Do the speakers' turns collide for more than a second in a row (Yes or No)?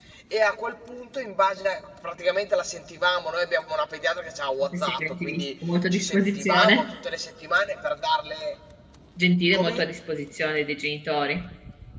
Yes